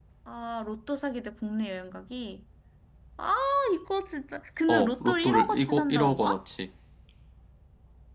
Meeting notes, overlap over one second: present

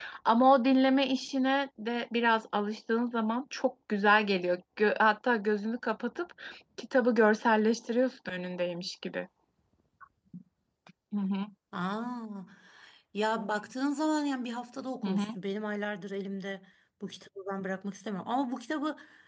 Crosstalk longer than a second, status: none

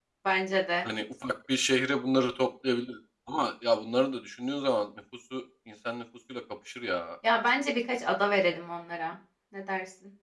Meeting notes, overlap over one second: none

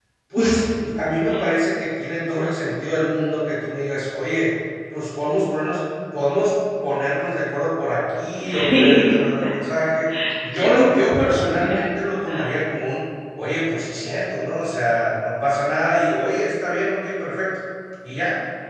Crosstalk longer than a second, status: present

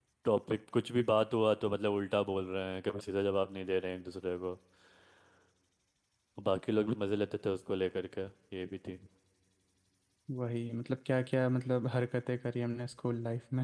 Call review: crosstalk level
none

